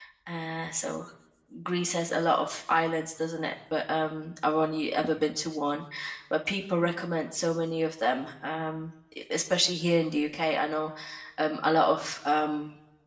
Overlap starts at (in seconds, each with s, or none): none